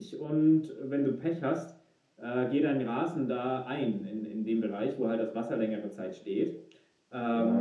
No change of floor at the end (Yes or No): No